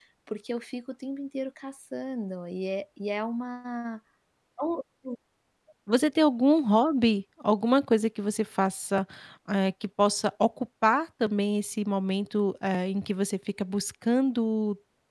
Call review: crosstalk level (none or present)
none